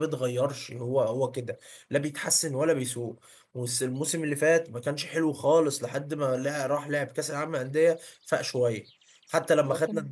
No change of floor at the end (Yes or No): Yes